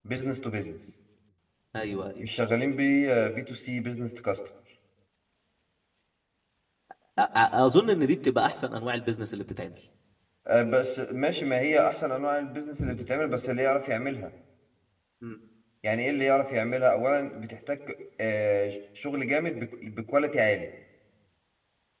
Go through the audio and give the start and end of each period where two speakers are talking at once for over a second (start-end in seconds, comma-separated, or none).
none